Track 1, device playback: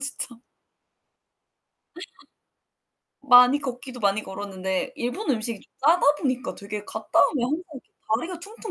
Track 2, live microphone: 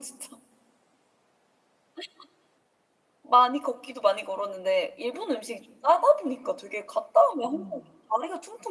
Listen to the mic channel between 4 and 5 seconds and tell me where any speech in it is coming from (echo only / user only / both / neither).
echo only